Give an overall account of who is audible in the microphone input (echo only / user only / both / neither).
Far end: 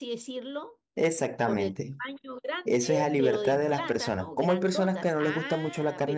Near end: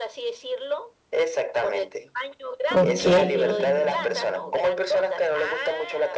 both